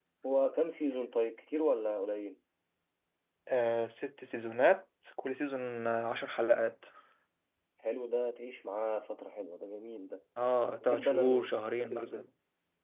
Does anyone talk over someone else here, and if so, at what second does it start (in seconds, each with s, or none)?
10.9 s